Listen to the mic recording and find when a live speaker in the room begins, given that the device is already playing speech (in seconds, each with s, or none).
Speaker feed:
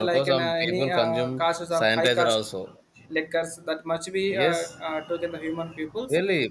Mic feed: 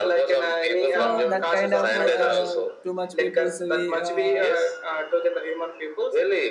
0.8 s